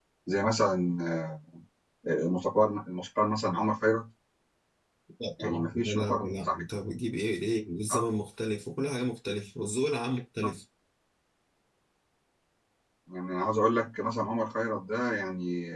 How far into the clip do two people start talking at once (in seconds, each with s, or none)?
5.4 s